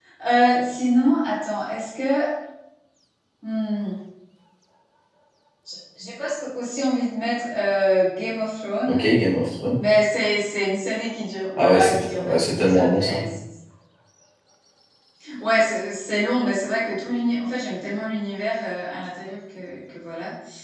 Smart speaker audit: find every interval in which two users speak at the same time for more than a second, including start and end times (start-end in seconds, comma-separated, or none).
11.6-13.2